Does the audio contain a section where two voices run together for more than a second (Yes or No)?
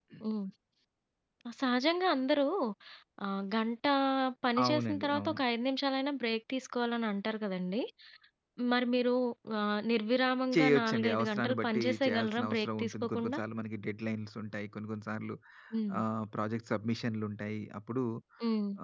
Yes